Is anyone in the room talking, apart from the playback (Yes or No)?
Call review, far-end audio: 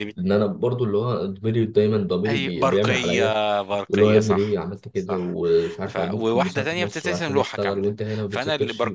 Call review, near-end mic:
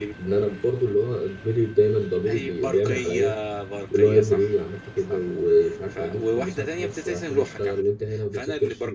No